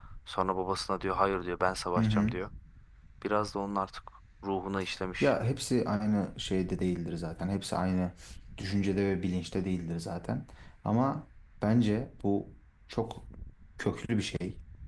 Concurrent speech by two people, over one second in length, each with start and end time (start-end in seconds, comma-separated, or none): none